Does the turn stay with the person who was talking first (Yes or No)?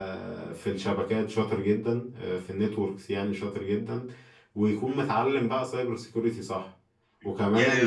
No